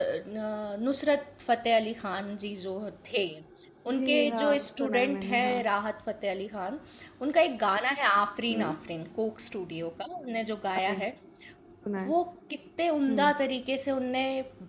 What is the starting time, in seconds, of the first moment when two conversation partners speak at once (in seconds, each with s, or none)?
3.9 s